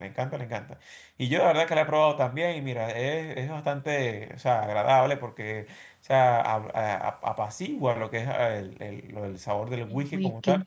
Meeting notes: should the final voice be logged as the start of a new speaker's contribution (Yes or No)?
No